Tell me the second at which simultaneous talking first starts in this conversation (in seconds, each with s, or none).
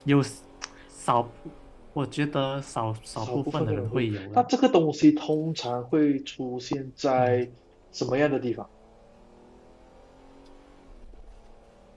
3.2 s